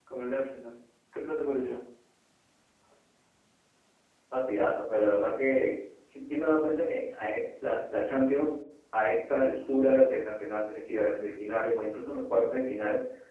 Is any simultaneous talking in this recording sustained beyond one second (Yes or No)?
No